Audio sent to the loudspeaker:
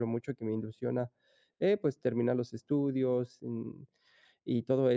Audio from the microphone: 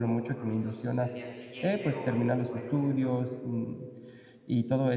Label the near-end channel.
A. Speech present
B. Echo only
A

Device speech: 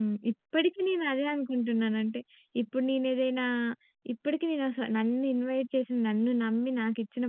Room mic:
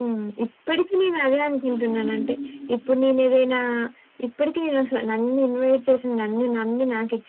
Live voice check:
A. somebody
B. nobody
A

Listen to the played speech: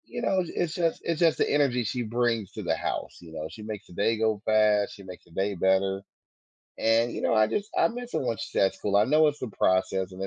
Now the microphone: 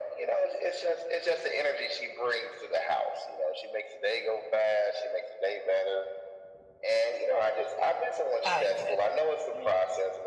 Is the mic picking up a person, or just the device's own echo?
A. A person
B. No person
A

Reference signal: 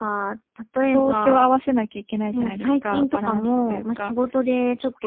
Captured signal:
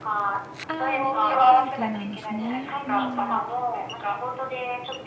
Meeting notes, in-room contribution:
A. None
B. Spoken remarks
B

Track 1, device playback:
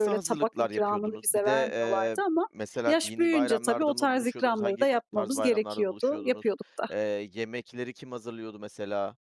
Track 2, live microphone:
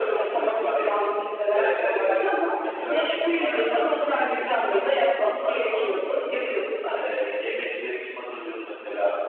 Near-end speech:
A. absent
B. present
A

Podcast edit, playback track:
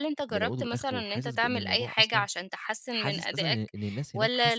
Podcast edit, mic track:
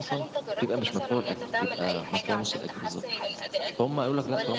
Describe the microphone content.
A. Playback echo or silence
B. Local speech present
B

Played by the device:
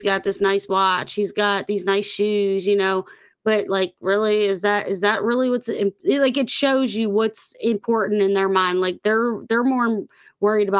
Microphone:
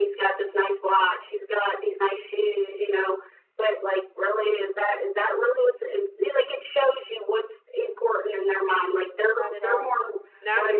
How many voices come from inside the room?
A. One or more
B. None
A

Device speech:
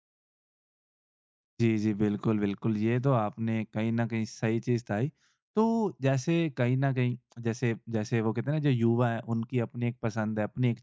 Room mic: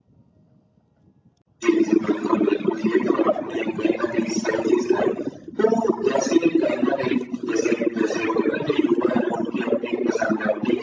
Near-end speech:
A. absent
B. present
A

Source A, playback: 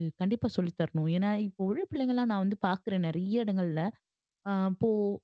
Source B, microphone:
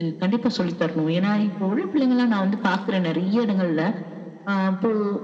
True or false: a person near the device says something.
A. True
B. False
B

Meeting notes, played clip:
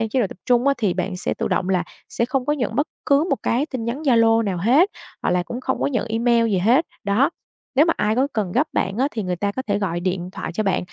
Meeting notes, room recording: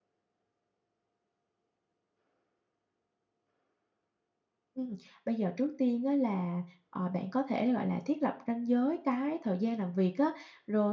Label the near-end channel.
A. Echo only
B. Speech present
B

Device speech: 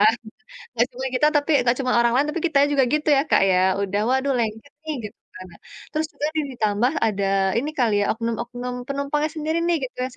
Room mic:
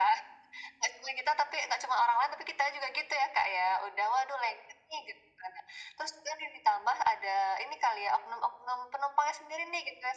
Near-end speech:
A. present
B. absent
B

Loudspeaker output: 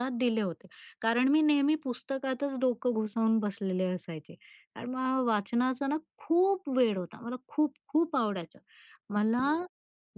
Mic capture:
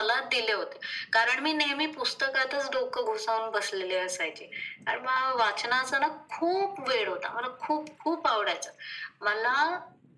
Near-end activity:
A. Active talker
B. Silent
B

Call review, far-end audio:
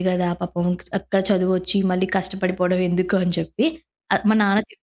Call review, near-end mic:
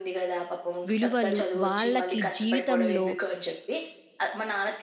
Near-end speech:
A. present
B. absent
A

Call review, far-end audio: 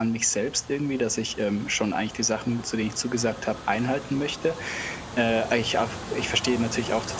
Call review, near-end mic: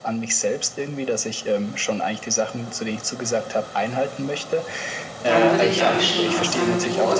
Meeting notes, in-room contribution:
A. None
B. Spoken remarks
B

